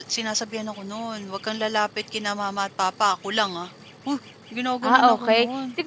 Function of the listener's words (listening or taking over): taking over